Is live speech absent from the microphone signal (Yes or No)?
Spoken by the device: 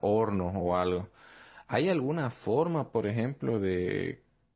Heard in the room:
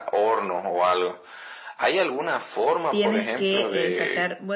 No